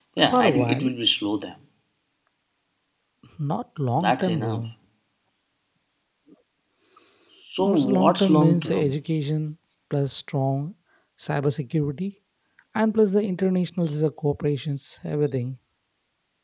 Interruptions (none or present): present